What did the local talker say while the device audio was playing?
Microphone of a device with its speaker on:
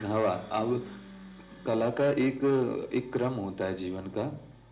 none

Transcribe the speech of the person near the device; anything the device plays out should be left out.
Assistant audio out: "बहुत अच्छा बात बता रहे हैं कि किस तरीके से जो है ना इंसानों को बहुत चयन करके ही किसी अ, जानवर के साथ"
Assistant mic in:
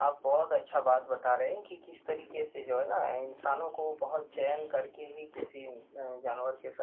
none

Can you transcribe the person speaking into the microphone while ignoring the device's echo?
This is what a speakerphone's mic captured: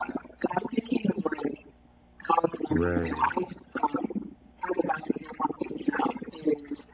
Right.

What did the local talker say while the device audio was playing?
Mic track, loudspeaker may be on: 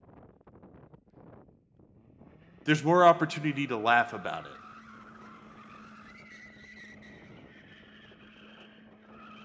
there's more opportunity to laugh about it,

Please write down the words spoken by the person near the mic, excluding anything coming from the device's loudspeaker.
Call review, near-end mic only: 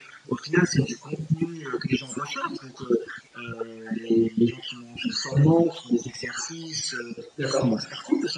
D'accord,

